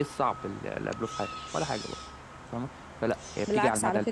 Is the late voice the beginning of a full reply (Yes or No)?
Yes